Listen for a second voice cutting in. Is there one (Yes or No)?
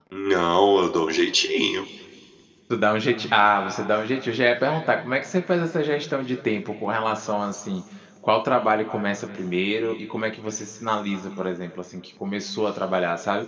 No